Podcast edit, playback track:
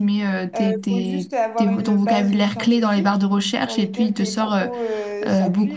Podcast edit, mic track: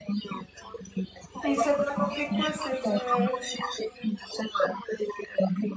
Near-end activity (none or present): present